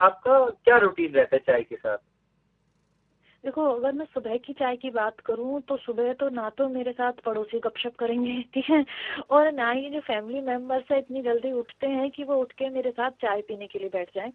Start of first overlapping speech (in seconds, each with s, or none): none